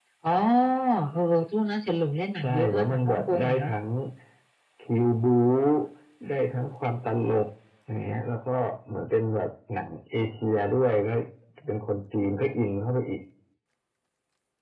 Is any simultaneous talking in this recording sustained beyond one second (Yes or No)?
Yes